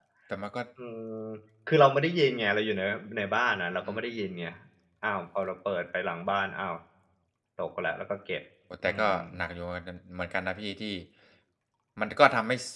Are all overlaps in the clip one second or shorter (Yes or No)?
Yes